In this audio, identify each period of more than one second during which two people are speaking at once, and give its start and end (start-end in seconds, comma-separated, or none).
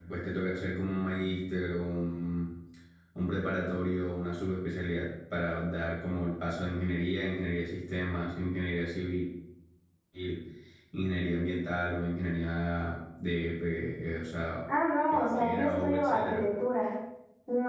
15.1-16.5